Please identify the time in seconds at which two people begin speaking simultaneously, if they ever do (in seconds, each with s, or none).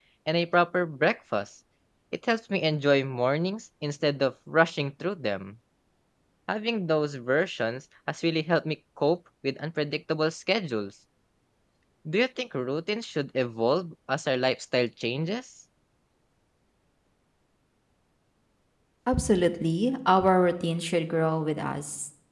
none